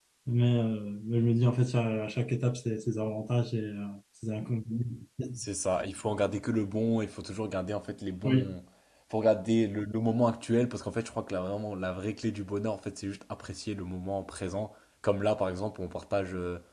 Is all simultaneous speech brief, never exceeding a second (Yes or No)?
Yes